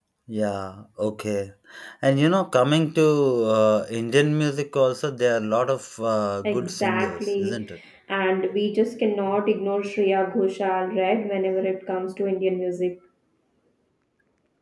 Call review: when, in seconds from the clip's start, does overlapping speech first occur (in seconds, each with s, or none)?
6.4 s